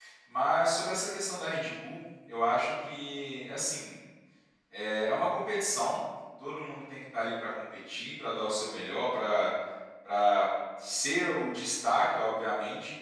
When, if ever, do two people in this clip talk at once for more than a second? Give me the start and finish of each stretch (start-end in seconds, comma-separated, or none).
none